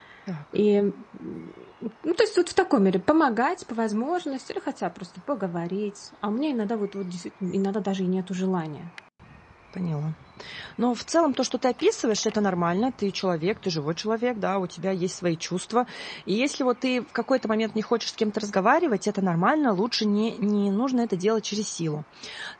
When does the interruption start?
none

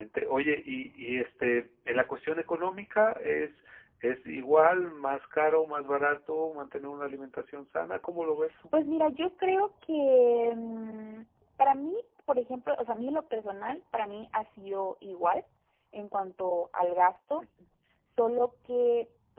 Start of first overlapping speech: none

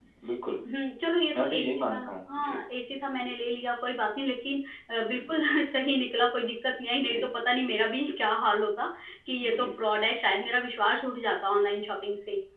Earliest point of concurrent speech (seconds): 1.4 s

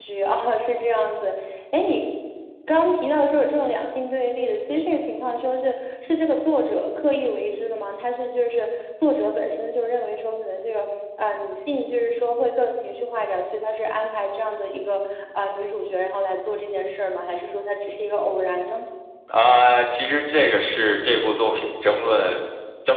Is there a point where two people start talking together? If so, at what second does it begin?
none

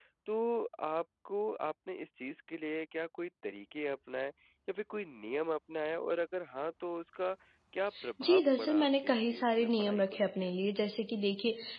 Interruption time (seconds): 8.2 s

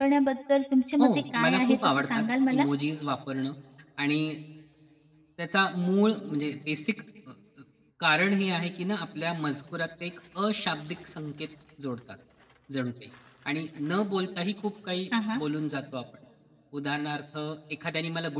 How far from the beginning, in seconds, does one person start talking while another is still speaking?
1.0 s

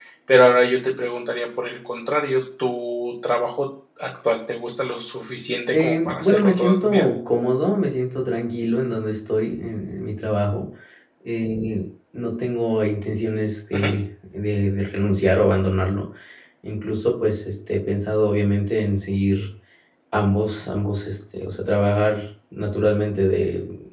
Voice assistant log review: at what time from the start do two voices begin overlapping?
5.7 s

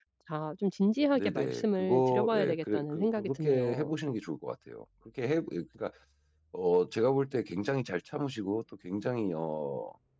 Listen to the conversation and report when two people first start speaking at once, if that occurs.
1.1 s

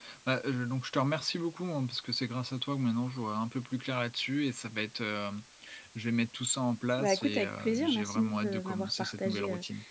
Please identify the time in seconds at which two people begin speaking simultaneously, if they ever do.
7.0 s

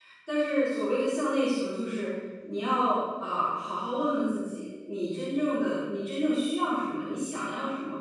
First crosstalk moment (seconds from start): none

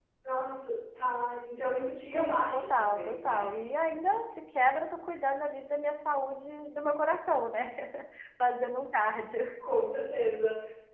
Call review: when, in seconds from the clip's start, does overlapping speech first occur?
2.1 s

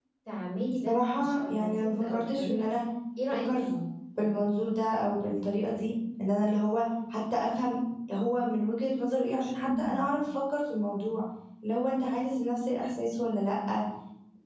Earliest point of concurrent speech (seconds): 0.9 s

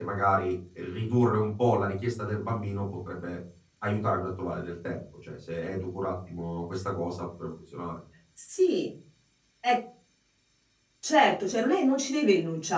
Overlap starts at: none

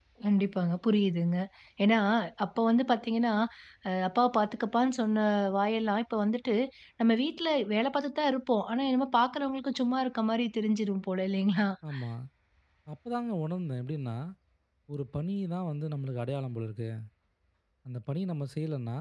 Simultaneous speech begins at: none

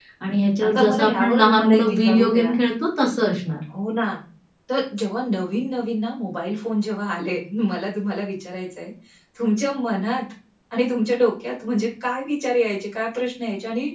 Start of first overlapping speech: 0.6 s

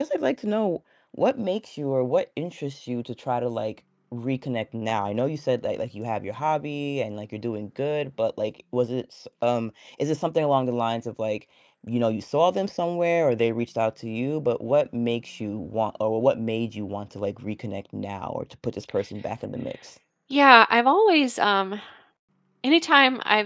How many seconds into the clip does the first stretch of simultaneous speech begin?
none

